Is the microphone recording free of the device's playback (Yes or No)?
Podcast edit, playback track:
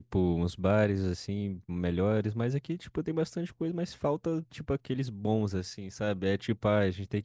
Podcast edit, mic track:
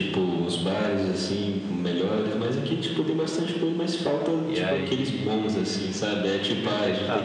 No